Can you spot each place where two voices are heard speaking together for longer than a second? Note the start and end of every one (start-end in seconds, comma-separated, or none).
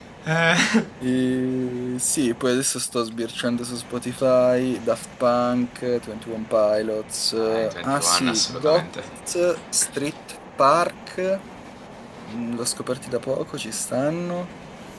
7.4-8.8